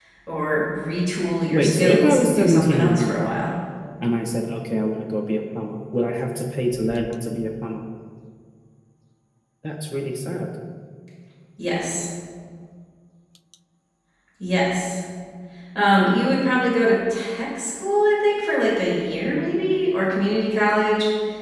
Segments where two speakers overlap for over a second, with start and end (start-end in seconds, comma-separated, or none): 1.5-3.4